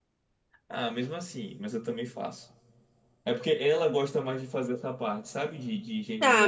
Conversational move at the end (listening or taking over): taking over